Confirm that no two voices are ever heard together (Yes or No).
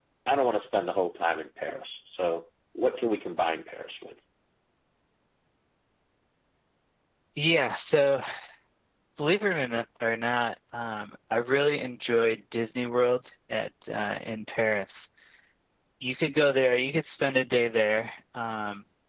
Yes